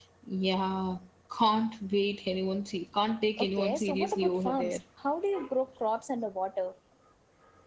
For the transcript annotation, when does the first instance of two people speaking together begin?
3.4 s

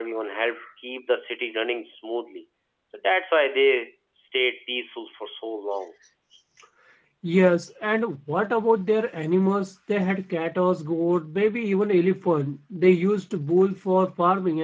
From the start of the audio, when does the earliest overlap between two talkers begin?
none

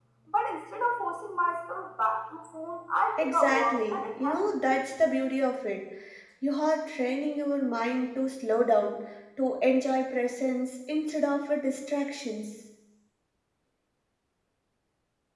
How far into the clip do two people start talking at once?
3.2 s

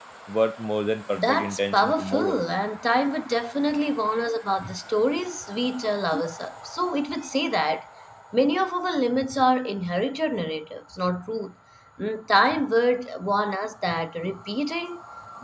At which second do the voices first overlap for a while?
1.1 s

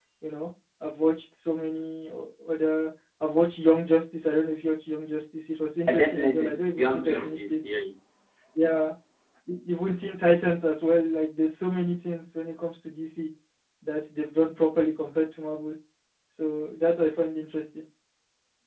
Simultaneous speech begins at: 5.9 s

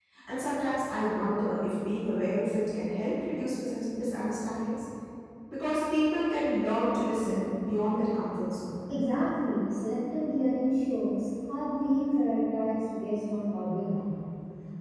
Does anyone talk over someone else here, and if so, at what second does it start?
none

